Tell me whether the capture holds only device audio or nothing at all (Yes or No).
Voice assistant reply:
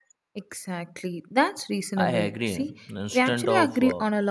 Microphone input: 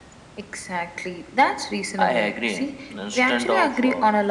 Yes